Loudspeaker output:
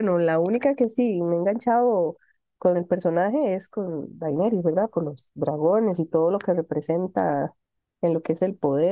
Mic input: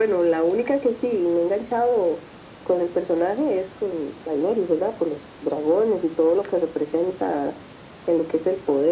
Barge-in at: none

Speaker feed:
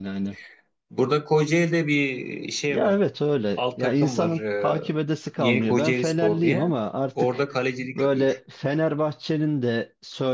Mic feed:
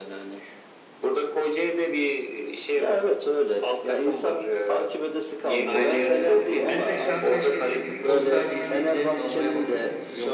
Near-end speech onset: 5.6 s

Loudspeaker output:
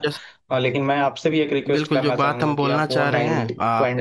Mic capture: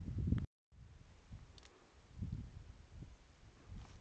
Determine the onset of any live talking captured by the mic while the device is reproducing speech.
none

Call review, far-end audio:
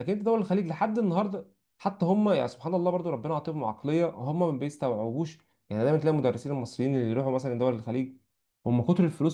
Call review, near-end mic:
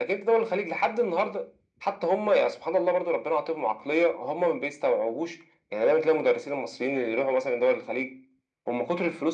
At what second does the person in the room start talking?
none

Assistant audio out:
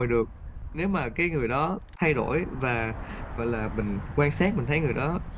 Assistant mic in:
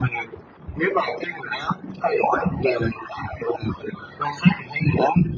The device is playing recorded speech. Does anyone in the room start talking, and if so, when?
none

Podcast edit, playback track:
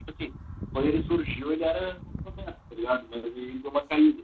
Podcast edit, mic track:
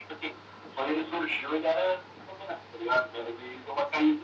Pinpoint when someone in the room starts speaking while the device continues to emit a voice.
none

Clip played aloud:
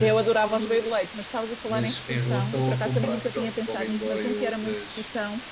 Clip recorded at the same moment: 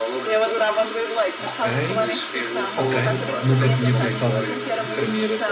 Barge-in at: 1.4 s

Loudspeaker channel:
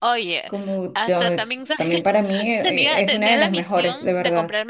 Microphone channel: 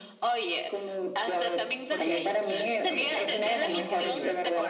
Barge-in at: 1.9 s

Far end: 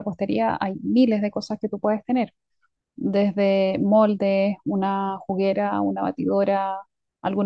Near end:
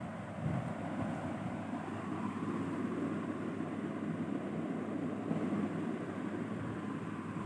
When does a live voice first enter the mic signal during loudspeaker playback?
none

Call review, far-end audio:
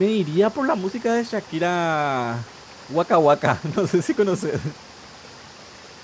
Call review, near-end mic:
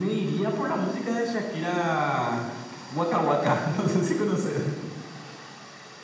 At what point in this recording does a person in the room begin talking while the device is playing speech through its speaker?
none

